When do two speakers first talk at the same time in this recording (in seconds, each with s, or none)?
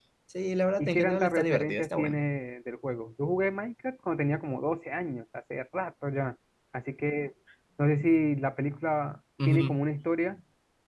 0.8 s